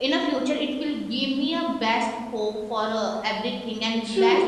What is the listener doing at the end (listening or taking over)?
taking over